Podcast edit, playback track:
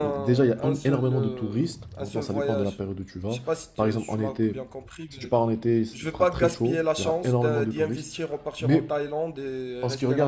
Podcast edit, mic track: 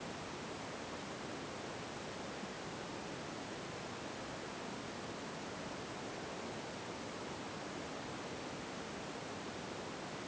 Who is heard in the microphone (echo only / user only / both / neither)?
neither